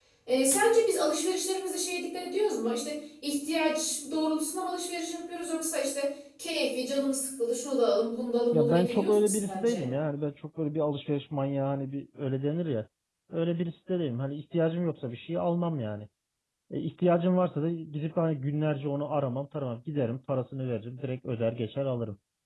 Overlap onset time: 8.5 s

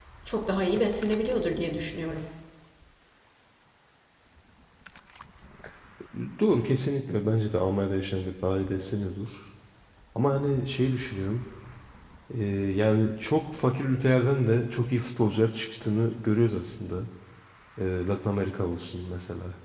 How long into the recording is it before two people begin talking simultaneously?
none

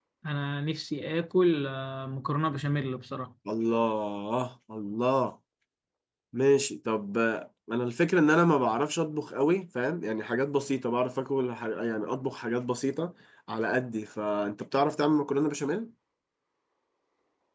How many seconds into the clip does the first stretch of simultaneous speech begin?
none

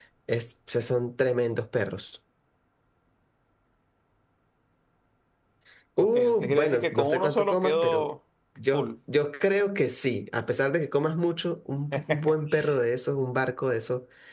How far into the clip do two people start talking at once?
6.0 s

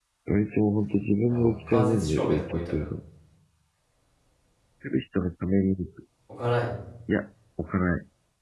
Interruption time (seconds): 1.3 s

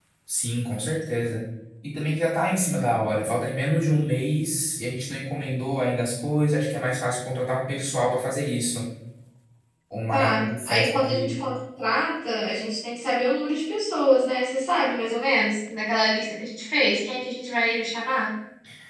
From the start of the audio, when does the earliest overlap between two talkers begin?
10.1 s

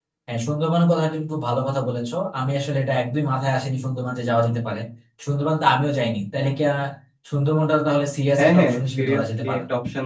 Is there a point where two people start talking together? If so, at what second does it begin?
8.4 s

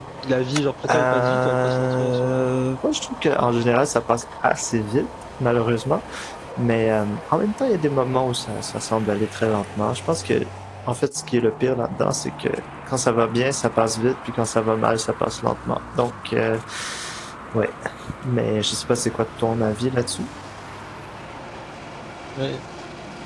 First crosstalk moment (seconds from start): 0.9 s

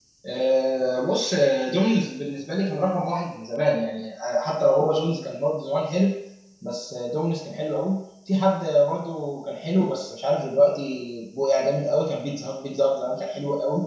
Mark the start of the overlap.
none

